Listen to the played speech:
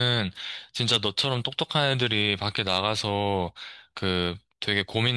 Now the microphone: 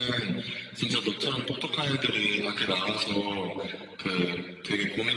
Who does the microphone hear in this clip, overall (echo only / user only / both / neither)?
echo only